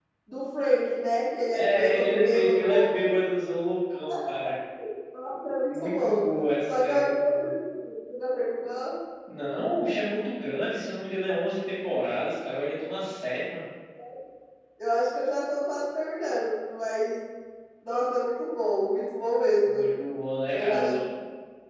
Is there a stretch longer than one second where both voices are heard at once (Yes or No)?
Yes